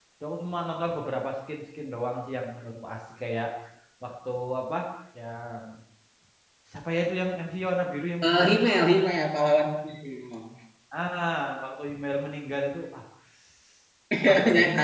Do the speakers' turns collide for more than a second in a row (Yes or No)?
No